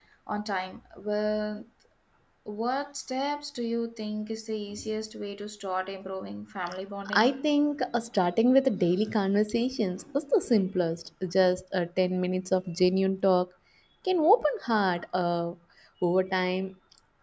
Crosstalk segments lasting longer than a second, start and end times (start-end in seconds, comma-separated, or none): none